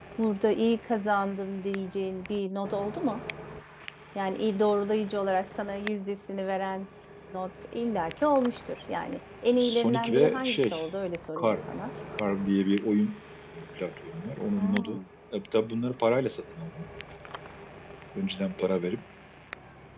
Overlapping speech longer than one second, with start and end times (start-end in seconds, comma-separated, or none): 9.6-10.8